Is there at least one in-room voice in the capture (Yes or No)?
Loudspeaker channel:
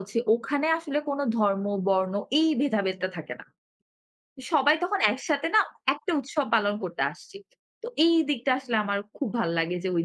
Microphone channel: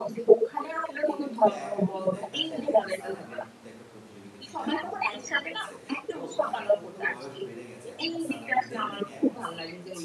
Yes